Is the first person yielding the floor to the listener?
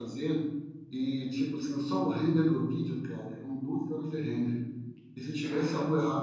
No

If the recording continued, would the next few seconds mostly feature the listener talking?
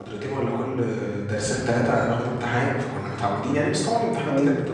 Yes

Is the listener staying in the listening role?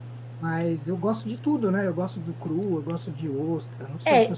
No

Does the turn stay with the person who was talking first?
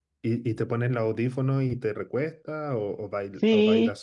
No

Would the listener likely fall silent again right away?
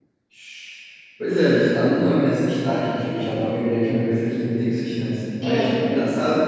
Yes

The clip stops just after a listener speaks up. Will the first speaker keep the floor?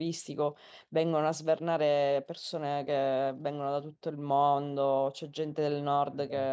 Yes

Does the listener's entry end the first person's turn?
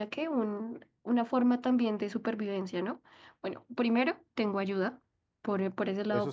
No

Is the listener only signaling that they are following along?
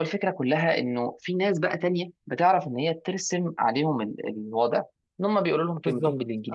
No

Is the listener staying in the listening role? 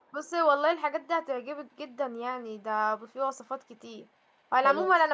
Yes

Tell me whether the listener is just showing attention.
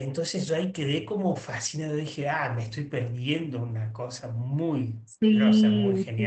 No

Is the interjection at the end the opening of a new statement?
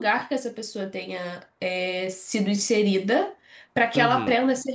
No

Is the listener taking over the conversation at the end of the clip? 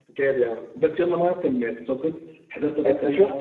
No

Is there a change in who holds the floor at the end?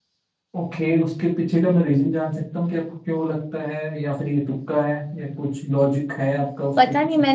Yes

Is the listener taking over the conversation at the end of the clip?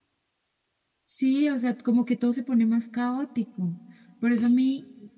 No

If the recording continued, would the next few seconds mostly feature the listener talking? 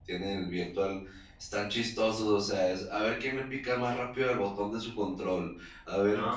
No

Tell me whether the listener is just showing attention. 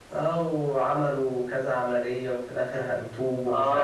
No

